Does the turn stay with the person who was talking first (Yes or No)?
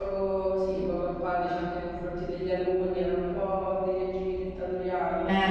No